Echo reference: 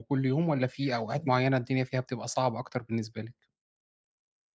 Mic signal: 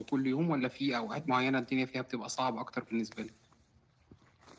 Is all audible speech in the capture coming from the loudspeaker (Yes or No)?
Yes